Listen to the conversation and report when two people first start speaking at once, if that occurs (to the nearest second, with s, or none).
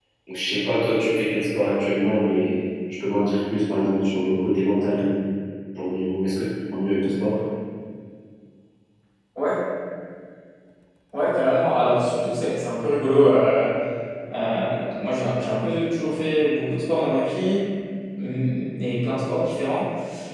none